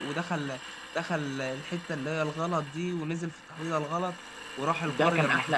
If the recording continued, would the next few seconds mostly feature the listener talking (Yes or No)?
Yes